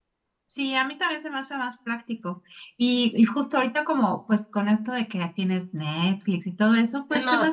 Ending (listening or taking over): listening